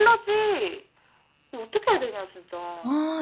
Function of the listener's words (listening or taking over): listening